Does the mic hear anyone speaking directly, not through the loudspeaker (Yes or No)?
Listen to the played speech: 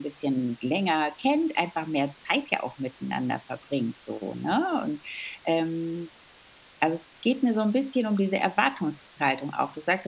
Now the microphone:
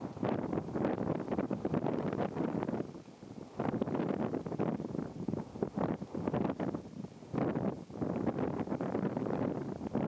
No